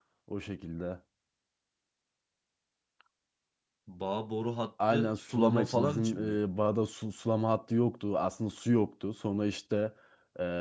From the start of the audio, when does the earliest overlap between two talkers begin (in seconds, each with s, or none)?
4.8 s